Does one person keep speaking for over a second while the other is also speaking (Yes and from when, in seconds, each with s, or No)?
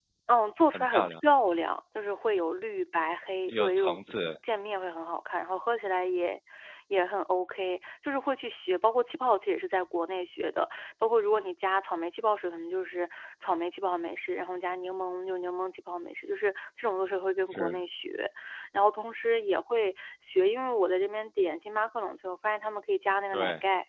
No